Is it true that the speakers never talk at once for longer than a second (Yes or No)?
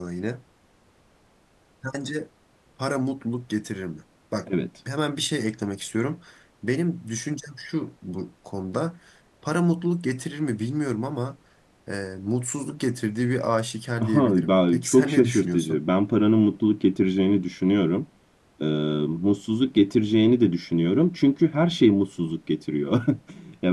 No